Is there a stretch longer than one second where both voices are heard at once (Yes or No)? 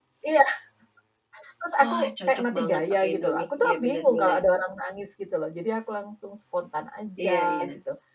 Yes